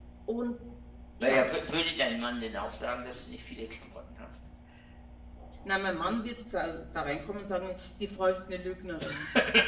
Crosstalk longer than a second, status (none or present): none